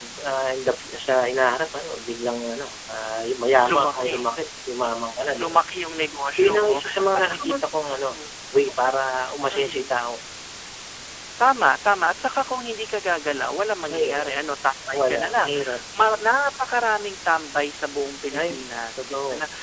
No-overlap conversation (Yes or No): No